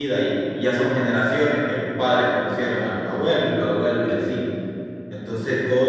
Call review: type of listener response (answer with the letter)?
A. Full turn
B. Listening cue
B